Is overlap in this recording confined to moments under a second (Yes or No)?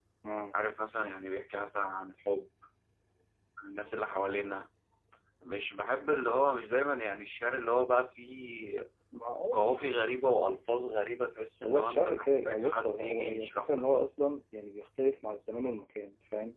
No